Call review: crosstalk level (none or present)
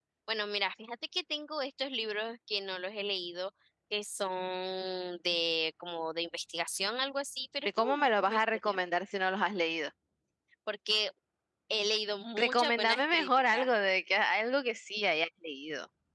present